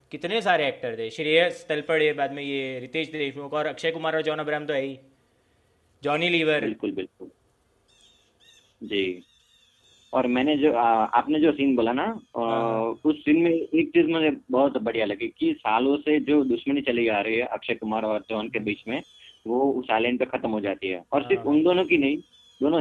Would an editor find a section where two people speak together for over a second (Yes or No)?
No